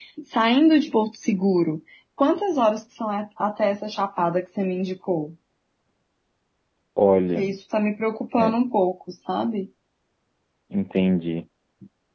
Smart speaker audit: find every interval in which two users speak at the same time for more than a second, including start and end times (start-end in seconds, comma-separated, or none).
none